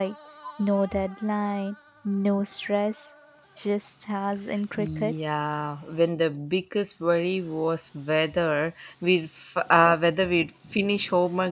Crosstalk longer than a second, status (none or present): none